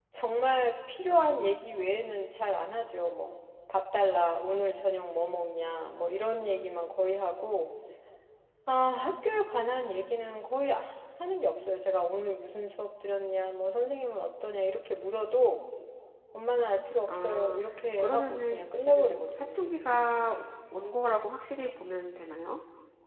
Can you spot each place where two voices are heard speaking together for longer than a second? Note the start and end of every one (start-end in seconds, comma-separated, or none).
17.1-19.7